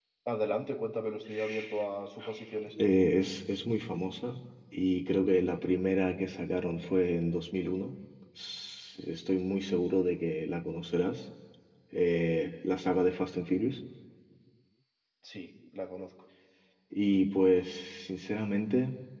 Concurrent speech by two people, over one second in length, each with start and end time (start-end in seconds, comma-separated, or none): none